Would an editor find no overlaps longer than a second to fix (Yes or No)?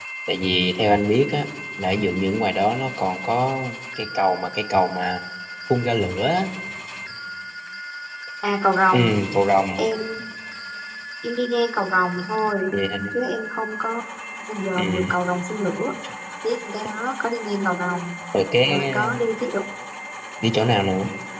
Yes